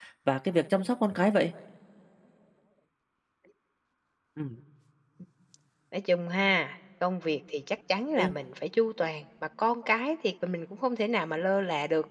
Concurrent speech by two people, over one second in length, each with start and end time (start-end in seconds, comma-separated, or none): none